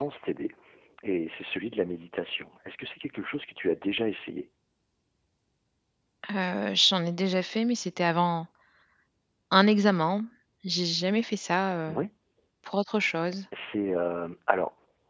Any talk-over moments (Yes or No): No